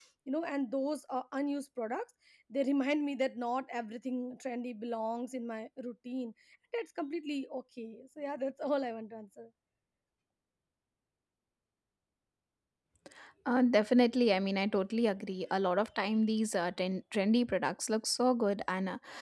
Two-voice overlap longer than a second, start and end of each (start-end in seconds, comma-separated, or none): none